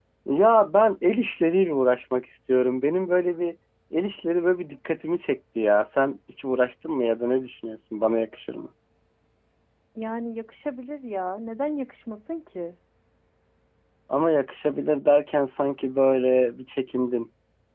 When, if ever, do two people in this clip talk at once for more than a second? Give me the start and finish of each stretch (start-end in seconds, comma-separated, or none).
none